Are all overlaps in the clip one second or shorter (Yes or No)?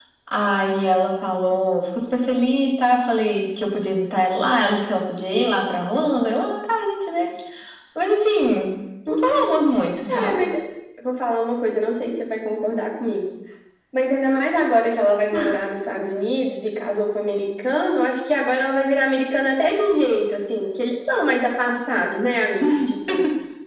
Yes